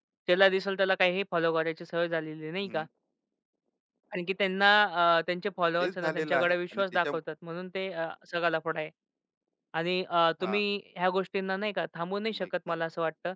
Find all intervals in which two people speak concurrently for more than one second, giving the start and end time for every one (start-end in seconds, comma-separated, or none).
5.8-7.0